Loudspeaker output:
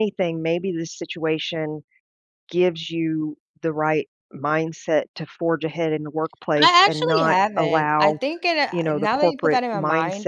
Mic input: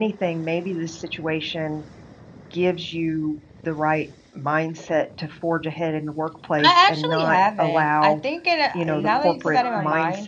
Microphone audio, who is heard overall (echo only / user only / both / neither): both